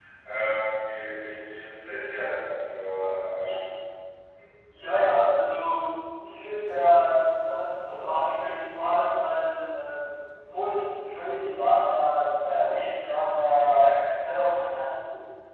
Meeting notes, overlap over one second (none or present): none